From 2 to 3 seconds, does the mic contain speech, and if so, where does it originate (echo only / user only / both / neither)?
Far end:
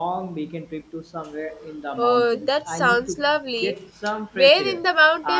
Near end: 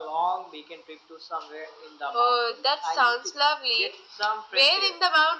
echo only